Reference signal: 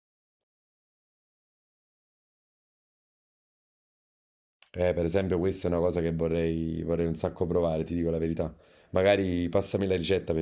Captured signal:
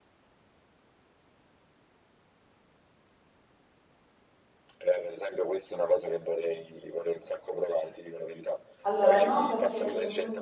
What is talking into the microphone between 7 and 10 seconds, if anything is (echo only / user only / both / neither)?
both